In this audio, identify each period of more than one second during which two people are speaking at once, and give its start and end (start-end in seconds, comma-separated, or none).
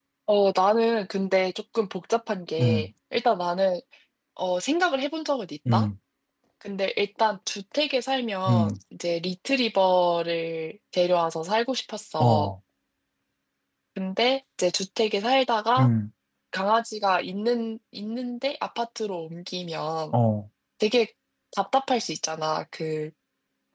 none